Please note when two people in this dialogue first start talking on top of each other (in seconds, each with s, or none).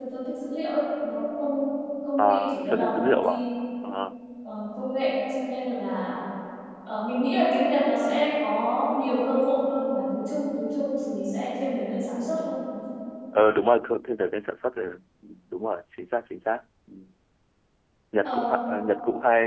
2.2 s